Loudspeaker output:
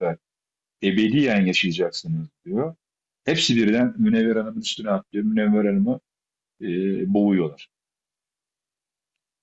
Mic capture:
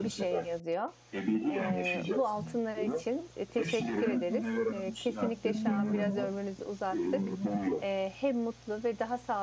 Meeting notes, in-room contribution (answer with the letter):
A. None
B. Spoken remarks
B